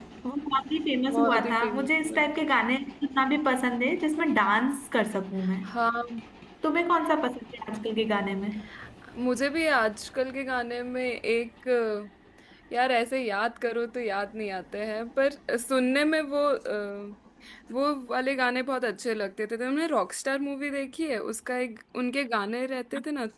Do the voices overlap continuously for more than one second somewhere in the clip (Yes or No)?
Yes